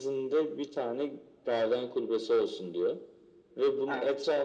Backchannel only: Yes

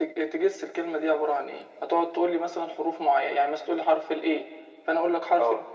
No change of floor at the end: Yes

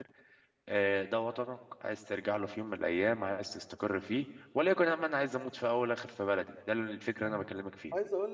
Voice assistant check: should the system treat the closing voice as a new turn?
Yes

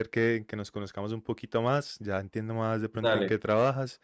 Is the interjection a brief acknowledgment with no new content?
Yes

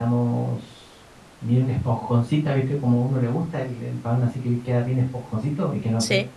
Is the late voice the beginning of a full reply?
No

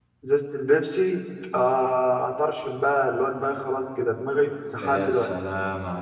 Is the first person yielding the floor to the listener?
Yes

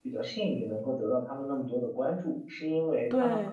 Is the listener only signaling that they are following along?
Yes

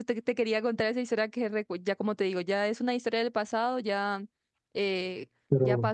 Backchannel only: Yes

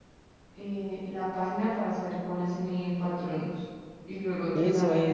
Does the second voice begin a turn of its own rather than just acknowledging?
Yes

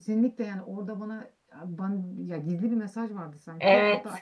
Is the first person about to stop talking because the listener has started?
No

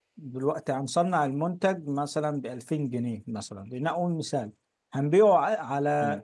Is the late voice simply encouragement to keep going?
Yes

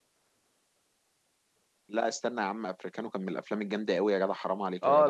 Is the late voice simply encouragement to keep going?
No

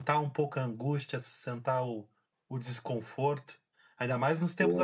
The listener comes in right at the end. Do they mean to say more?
No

